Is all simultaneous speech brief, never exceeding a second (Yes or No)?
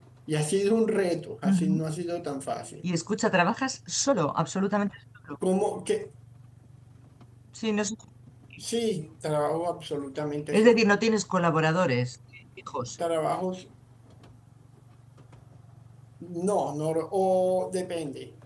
Yes